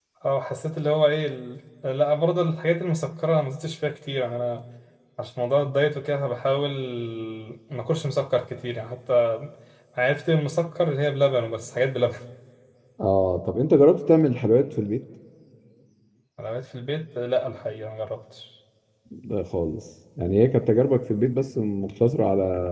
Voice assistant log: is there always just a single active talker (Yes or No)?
Yes